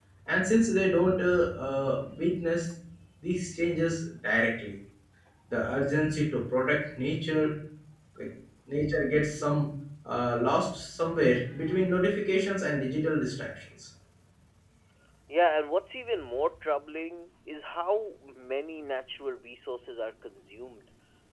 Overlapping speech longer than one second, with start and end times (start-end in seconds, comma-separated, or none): none